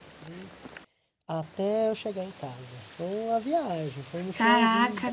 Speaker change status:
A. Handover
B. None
A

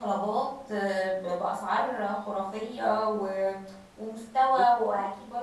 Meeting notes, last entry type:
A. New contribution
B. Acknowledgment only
B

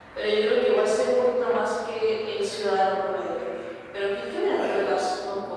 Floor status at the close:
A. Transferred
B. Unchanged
B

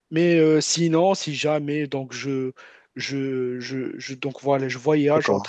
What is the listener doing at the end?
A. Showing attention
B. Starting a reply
A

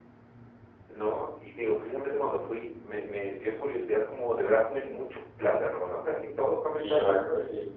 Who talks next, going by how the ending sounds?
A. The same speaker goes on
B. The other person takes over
B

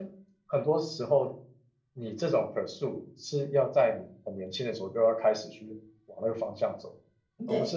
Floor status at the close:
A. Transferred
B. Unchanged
B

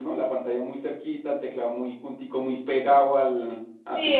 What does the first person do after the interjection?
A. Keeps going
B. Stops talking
B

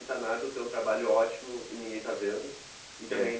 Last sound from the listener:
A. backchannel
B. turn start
A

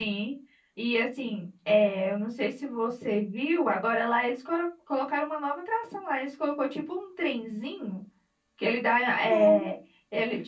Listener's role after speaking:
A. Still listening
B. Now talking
A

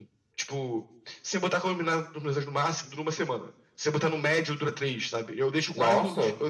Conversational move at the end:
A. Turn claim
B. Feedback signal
B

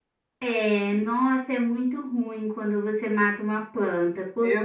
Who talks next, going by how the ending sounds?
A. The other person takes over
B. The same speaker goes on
B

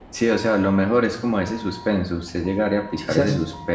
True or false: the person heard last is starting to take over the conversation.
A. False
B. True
A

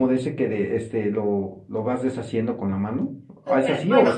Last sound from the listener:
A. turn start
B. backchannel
A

